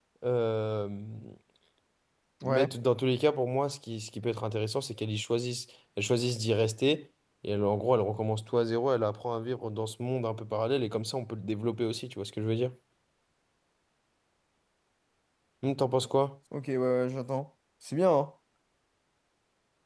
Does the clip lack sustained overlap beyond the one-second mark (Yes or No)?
Yes